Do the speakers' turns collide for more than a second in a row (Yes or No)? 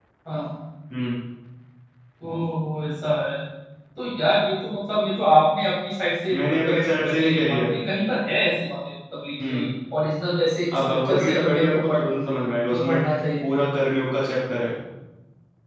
Yes